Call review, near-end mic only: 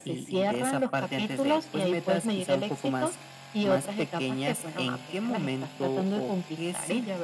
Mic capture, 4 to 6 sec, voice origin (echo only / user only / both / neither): echo only